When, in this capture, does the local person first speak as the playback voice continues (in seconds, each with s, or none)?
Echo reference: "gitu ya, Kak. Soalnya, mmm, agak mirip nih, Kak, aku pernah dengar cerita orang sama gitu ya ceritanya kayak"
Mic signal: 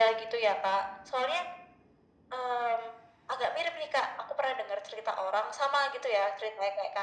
none